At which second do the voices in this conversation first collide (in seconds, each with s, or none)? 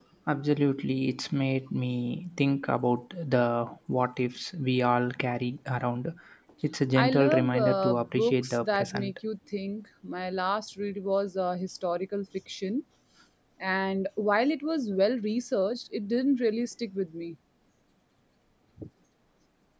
7.0 s